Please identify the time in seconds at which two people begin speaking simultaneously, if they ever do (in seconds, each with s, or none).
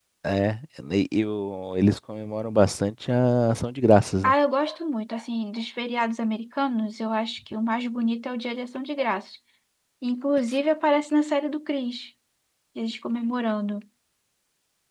none